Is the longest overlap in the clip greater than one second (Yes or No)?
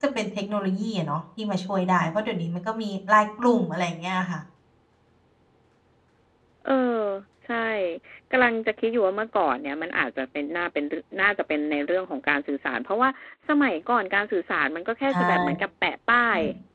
No